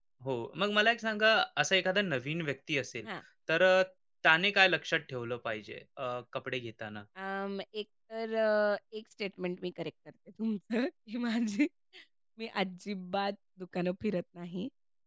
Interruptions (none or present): none